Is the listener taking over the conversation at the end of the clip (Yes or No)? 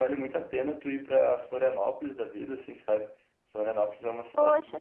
No